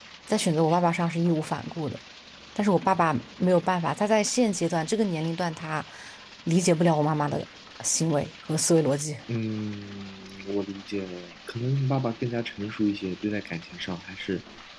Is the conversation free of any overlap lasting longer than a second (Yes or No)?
Yes